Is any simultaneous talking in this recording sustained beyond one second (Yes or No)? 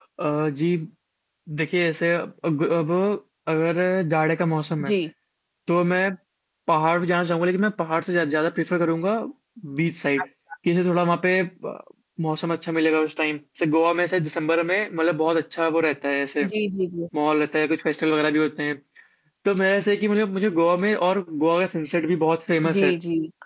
No